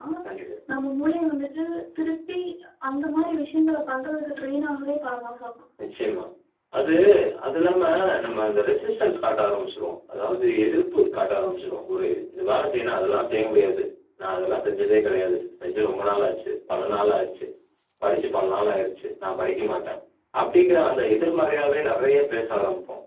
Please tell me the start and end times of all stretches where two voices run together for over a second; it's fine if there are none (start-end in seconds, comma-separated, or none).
none